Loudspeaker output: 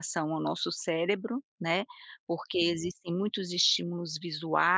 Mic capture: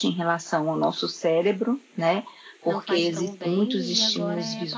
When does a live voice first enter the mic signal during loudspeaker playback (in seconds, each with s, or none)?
2.7 s